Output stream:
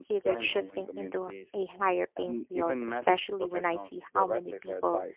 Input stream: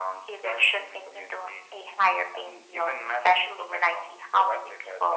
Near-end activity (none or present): none